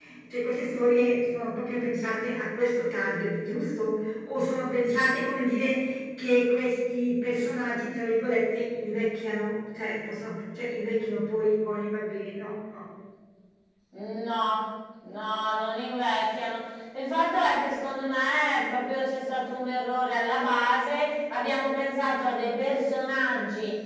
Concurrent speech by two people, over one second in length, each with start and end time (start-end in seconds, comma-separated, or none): none